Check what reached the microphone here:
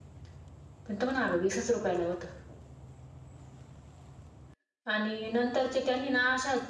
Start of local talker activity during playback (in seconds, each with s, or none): none